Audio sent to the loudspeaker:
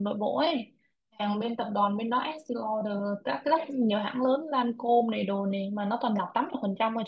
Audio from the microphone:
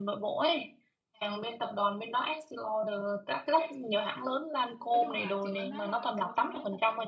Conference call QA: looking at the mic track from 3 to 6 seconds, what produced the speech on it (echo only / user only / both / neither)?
both